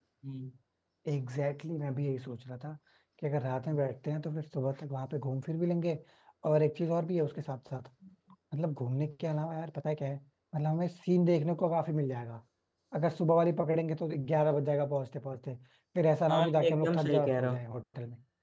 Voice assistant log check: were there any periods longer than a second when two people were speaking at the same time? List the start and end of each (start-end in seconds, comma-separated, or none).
16.3-17.6